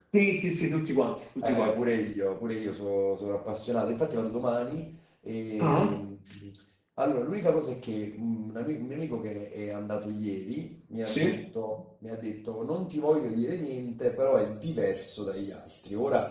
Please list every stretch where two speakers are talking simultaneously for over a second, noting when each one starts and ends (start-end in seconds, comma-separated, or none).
none